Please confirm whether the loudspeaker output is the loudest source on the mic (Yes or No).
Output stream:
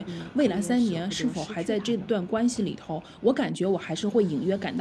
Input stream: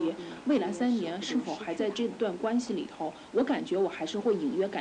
Yes